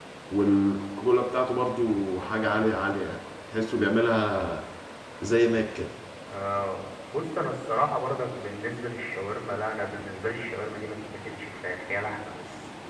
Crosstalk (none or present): none